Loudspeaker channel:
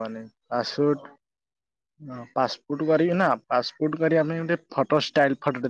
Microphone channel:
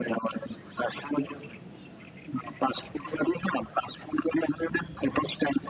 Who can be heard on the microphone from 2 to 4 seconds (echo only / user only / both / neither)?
echo only